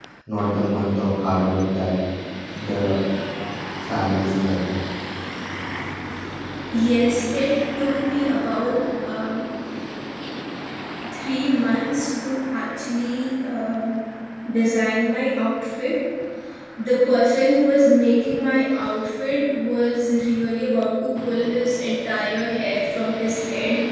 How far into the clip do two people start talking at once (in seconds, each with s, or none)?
none